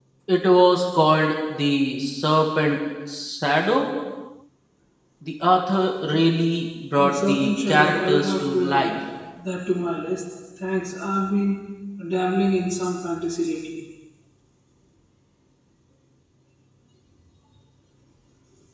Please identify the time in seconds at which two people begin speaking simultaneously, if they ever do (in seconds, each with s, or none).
6.9 s